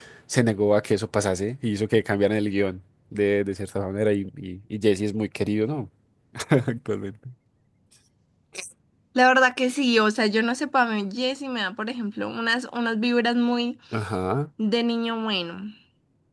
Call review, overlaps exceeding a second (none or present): none